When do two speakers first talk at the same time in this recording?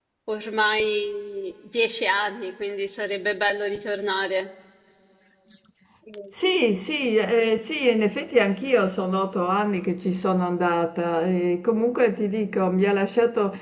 none

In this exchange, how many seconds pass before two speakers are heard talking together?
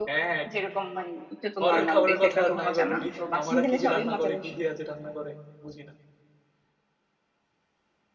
2 s

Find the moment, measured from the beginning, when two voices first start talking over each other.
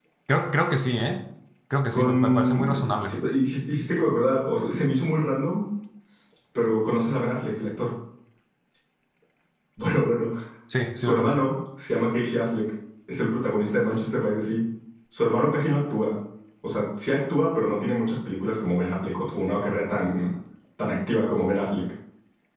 2 s

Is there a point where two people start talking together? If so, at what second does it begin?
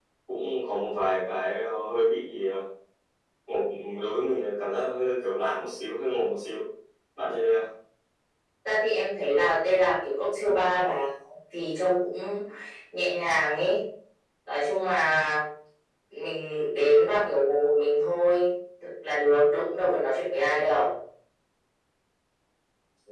none

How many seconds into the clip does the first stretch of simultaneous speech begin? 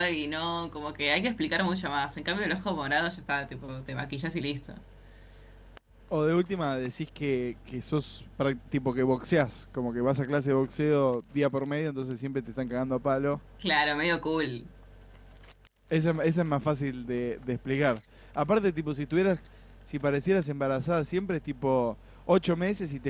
none

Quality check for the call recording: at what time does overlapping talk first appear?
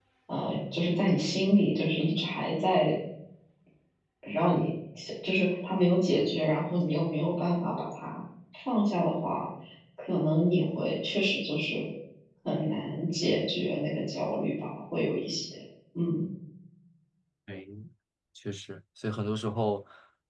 none

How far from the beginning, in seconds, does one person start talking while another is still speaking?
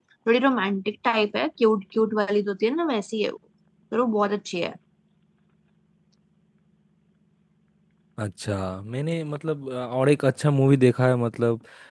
none

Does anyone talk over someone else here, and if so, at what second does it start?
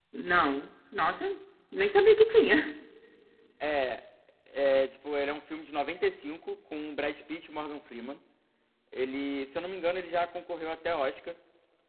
none

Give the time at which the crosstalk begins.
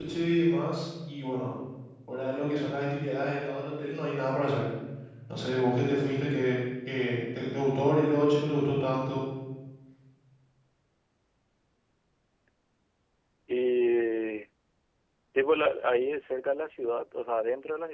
none

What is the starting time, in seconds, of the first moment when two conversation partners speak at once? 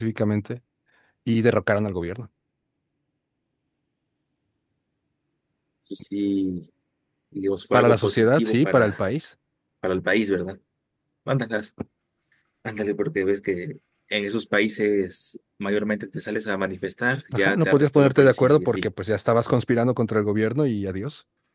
8 s

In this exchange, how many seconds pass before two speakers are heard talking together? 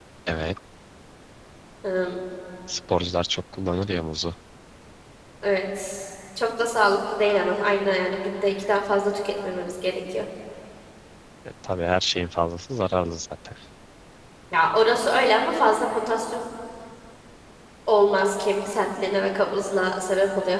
none

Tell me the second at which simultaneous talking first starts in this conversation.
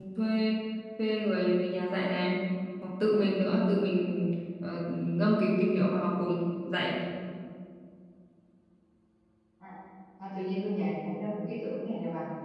none

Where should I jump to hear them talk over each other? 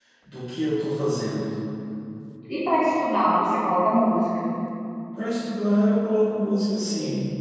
none

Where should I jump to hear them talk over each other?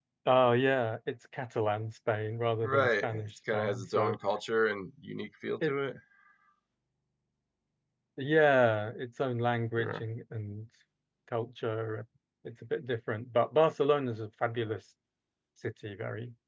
3 s

